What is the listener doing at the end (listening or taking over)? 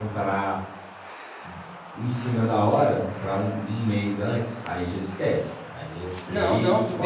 taking over